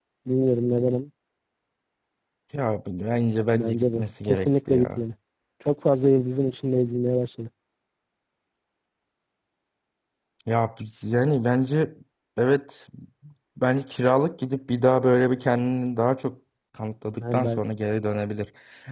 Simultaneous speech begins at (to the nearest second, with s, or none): 4 s